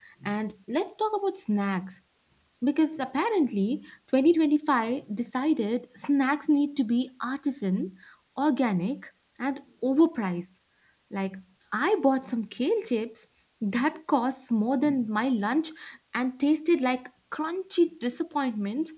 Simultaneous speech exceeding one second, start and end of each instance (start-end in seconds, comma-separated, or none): none